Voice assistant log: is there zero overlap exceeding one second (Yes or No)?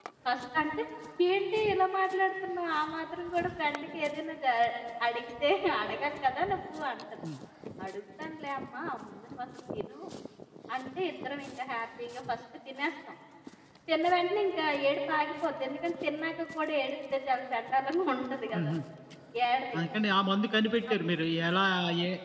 Yes